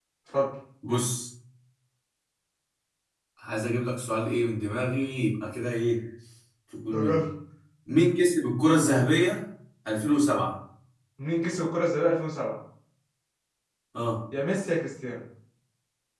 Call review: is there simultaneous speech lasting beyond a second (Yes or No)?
No